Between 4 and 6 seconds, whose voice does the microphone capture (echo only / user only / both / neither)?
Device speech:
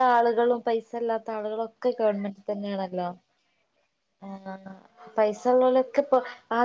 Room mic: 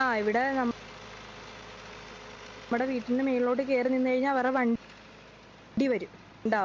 user only